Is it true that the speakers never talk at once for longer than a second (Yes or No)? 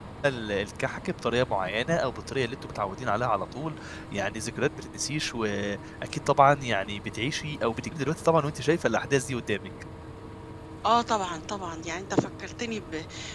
Yes